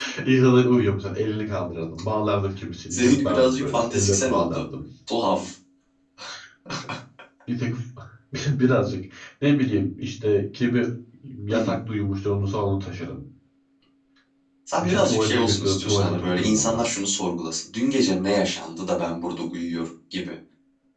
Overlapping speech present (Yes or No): Yes